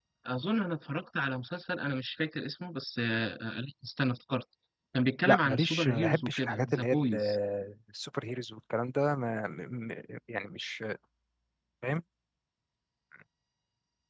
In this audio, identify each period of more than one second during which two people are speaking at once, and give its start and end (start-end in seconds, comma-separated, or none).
5.2-7.1